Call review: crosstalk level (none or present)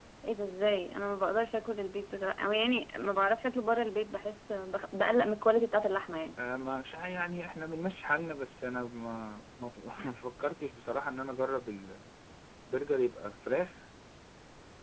none